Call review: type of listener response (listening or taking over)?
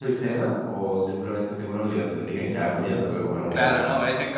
taking over